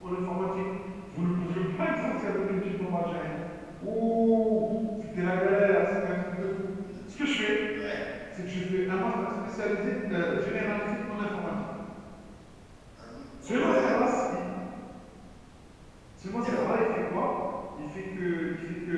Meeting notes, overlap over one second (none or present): none